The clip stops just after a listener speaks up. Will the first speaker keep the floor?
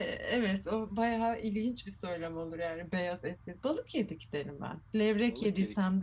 Yes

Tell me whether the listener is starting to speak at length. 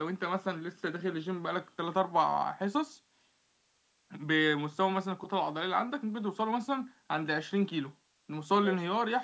No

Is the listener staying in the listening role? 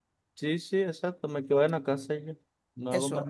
No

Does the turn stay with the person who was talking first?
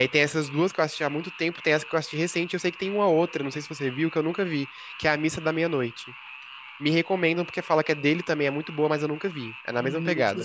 No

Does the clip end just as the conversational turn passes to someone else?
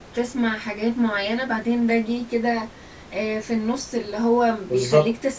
No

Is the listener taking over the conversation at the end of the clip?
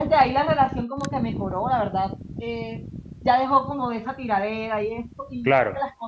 No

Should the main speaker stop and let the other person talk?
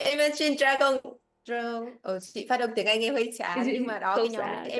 Yes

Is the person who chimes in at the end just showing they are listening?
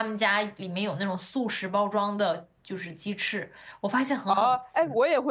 No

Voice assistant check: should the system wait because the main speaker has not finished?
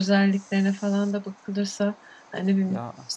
Yes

